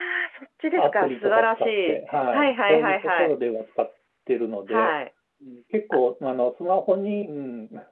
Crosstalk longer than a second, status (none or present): present